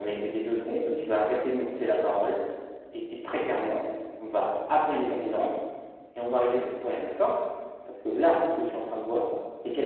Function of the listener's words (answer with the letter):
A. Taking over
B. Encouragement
B